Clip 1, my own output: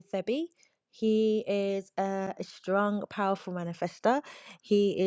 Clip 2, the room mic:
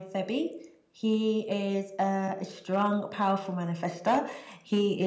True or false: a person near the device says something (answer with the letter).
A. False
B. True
A